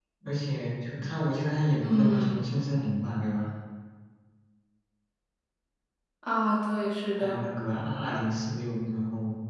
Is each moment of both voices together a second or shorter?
Yes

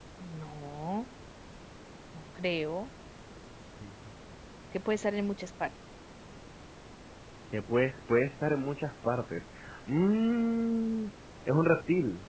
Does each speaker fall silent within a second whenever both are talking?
Yes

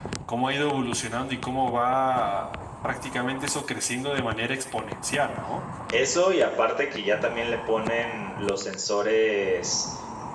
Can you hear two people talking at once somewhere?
No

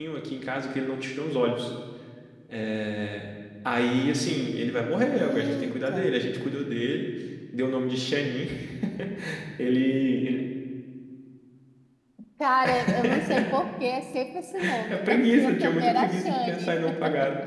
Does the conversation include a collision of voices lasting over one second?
Yes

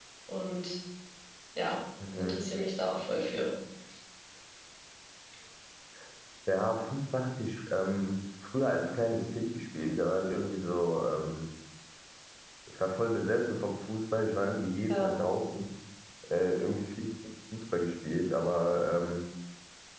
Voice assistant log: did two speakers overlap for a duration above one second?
No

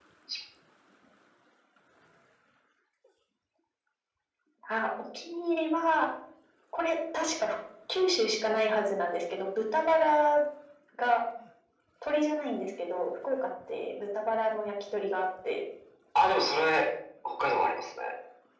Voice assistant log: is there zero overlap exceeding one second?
Yes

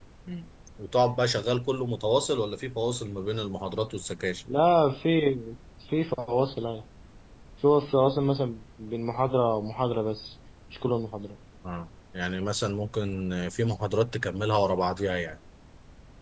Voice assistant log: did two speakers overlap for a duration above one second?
No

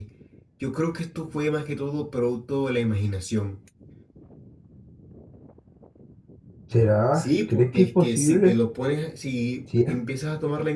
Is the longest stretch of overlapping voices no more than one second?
No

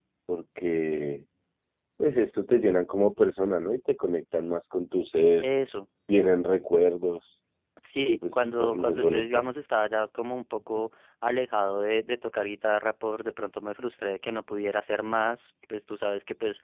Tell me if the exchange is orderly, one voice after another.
No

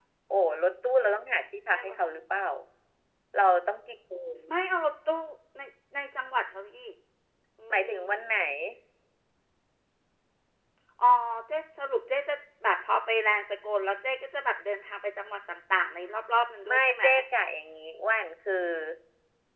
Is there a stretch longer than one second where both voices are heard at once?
No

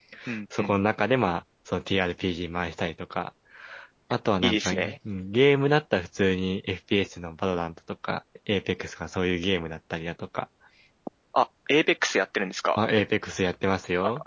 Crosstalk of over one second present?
No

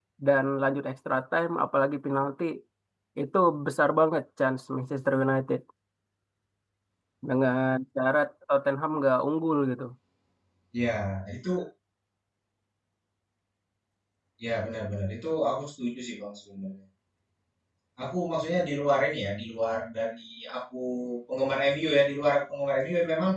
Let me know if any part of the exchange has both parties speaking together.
No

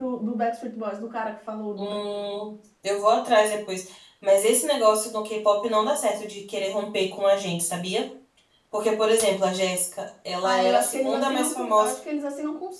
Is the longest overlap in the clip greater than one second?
Yes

